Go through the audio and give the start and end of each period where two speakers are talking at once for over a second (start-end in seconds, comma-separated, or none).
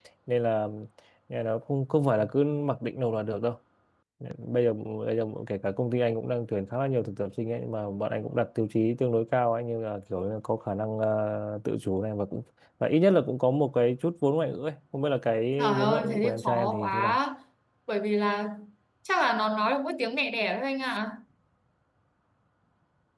15.6-17.2